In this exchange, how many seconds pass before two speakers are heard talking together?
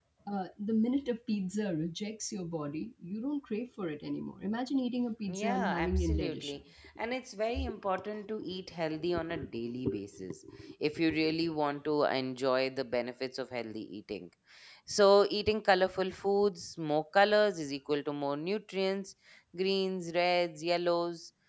5.3 s

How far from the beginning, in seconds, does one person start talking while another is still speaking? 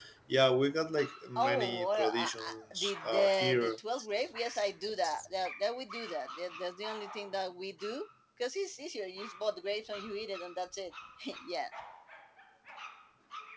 1.4 s

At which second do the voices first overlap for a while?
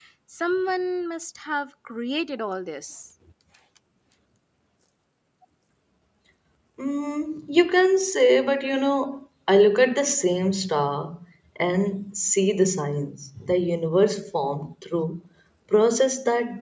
none

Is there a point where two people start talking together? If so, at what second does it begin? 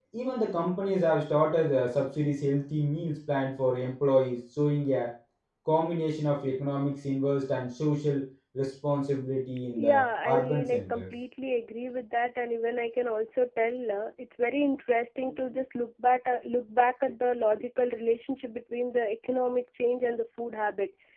9.8 s

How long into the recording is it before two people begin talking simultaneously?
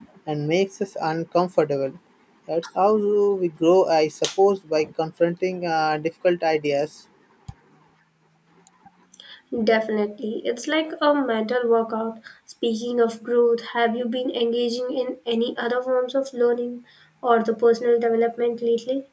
none

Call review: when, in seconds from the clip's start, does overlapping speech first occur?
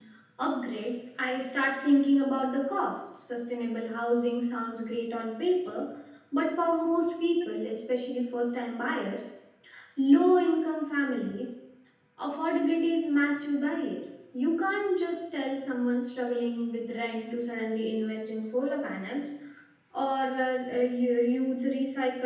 none

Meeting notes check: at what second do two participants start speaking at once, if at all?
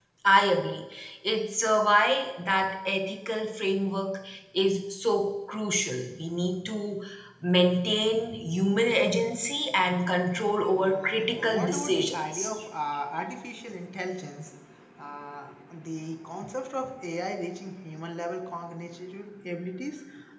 10.7 s

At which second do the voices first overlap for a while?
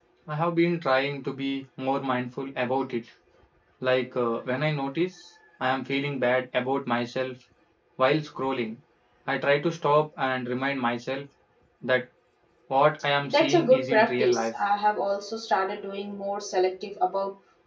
13.3 s

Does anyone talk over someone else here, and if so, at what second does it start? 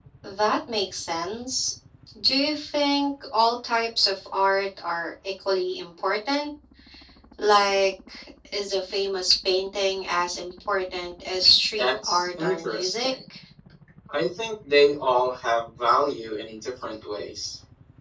11.8 s

